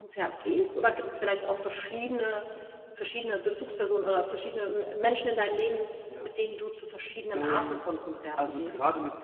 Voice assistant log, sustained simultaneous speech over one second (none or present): none